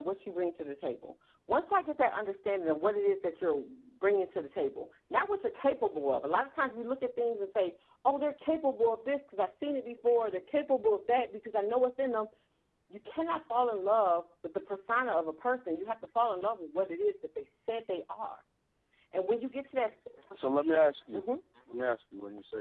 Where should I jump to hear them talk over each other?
none

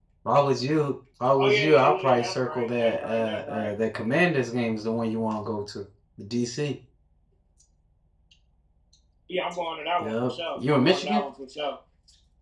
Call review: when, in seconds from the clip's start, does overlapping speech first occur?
1.4 s

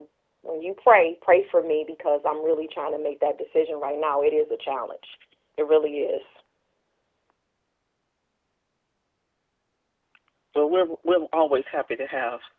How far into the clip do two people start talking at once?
none

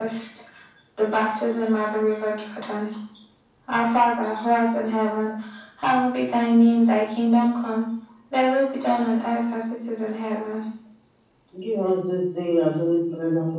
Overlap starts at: none

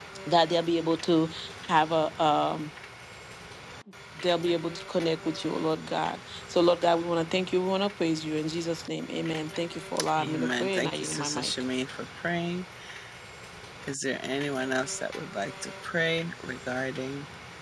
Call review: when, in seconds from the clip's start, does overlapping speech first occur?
10.0 s

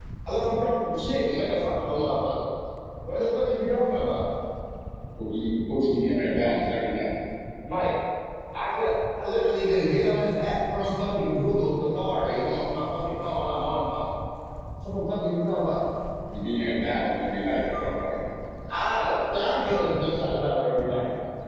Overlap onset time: none

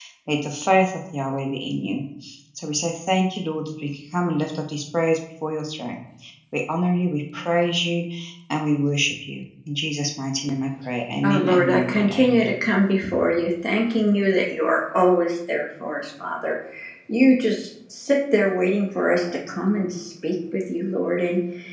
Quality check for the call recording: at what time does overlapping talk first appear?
11.2 s

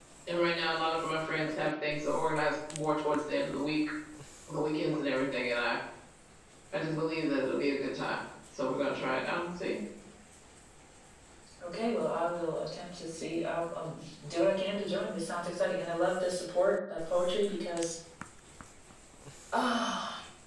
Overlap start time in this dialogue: none

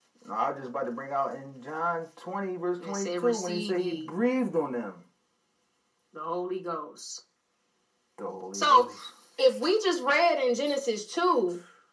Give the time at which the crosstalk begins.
2.9 s

